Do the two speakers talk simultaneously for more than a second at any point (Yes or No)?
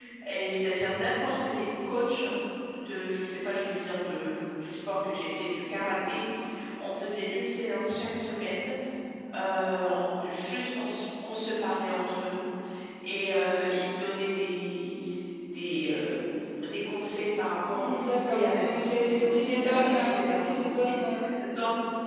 Yes